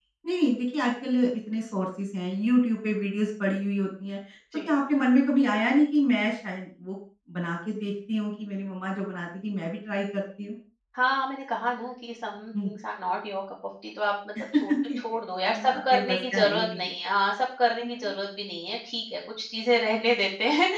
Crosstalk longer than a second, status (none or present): present